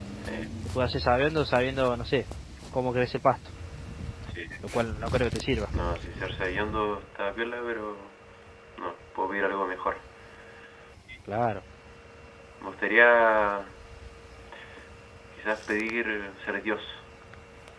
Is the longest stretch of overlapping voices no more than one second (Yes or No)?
Yes